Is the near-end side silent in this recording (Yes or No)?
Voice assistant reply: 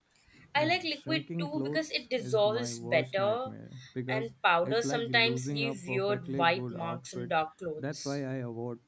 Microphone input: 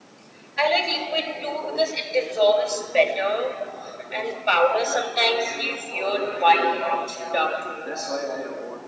Yes